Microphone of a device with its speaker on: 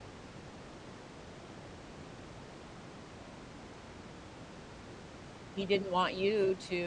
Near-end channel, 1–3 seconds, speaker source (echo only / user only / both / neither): neither